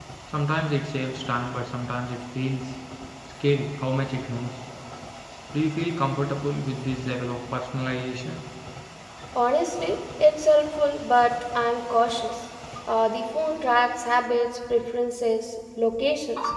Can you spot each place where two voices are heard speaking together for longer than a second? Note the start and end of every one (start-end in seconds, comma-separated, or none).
none